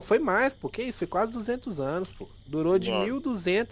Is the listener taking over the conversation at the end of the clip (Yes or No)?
No